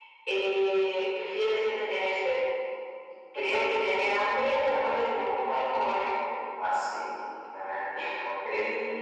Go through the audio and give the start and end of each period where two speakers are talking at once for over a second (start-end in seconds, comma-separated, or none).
none